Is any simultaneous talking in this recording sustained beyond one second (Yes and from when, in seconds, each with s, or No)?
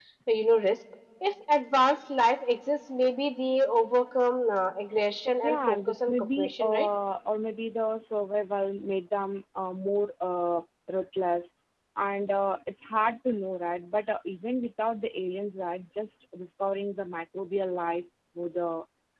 Yes, from 5.4 s